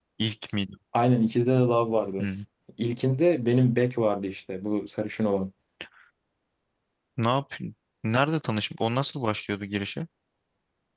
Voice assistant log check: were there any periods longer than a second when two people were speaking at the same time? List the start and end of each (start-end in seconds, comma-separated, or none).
none